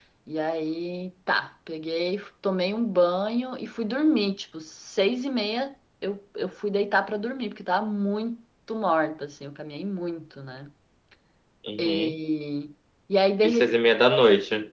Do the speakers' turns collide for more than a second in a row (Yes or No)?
No